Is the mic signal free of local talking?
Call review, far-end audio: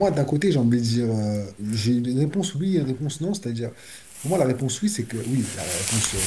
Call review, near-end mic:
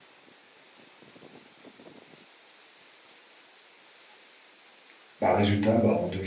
No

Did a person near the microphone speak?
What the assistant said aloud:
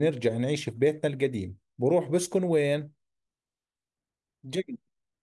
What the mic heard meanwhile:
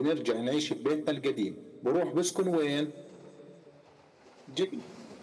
No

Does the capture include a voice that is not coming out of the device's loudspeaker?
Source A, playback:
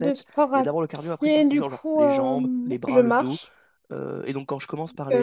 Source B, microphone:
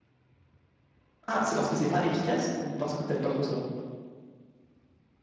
Yes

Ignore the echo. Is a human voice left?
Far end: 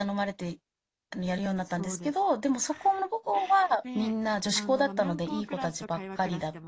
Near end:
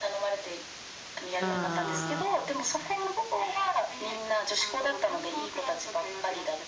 Yes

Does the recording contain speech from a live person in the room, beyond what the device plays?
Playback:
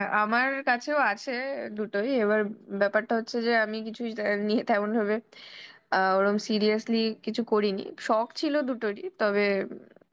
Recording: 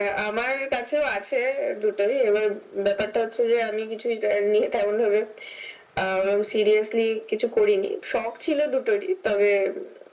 No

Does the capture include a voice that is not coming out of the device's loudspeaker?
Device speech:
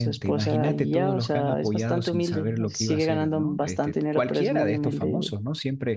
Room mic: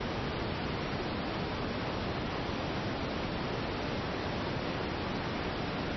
No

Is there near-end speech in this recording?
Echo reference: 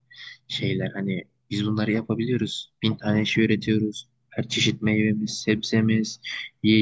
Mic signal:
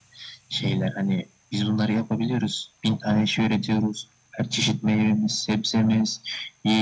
No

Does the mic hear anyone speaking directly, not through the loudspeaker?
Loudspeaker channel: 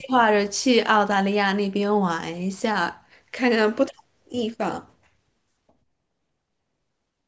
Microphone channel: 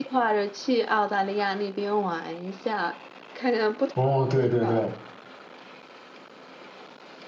Yes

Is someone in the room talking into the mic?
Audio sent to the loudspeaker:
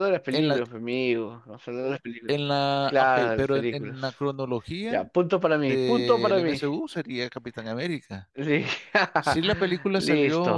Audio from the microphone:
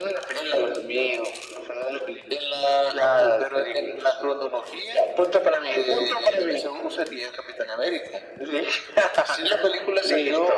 No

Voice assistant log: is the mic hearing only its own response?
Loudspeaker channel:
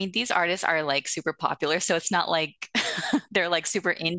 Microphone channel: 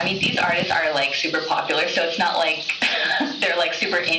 Yes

